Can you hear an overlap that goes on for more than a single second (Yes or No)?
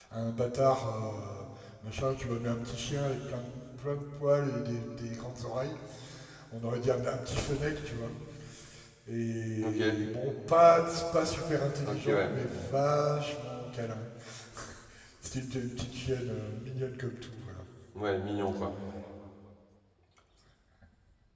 No